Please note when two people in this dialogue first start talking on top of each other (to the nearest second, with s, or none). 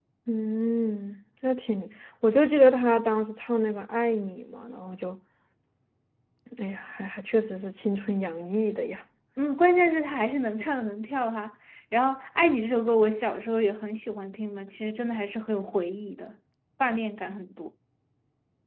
none